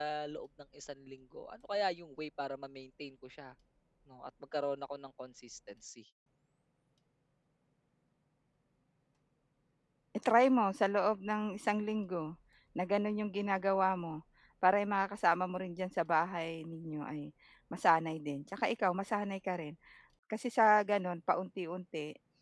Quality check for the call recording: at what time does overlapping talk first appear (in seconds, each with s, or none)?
none